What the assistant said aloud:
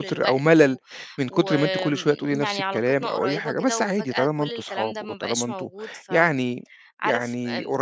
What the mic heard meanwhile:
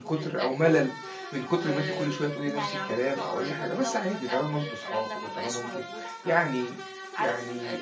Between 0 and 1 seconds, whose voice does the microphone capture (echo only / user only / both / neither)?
echo only